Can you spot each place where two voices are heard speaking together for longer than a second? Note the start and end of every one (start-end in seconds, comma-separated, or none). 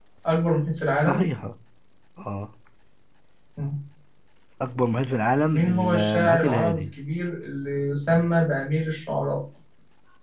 5.5-6.8